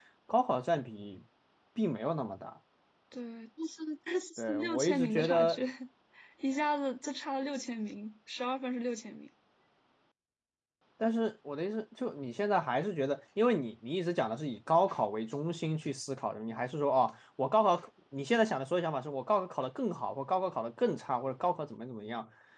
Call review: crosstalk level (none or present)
present